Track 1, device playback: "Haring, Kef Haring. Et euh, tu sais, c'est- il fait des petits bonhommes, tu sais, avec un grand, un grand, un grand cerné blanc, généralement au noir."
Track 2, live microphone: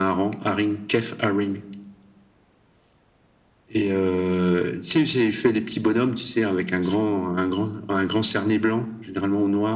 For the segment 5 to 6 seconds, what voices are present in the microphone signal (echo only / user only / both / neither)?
echo only